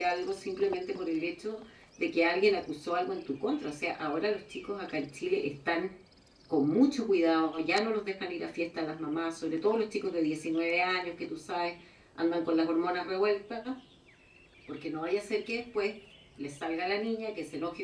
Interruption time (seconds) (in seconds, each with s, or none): none